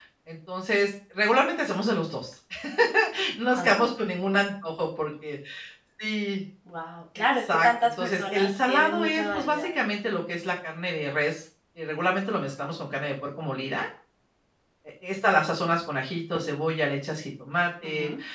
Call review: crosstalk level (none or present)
present